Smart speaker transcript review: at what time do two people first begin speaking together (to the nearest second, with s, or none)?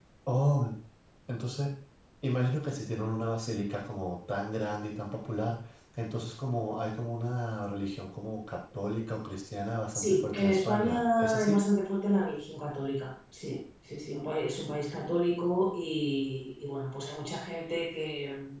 10 s